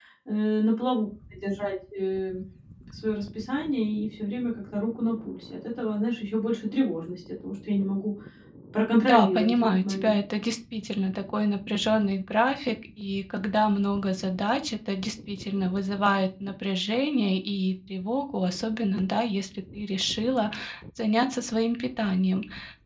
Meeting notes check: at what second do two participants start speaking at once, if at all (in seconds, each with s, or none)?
9.0 s